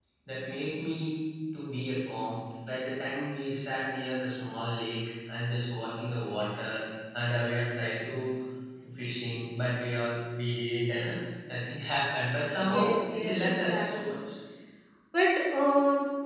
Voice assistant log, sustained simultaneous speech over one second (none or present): present